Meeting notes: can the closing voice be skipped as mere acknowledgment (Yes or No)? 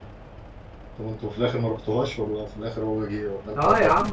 No